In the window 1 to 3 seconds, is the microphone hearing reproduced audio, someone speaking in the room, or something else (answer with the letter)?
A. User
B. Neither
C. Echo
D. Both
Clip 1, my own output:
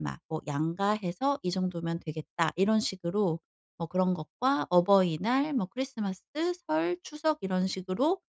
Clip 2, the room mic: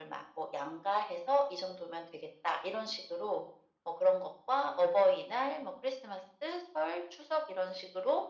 C